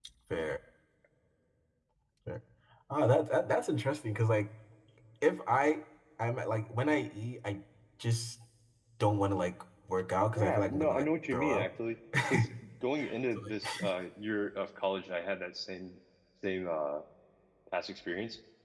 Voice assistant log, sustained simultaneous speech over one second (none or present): present